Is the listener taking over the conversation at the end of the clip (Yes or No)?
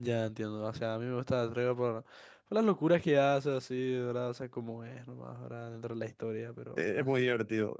Yes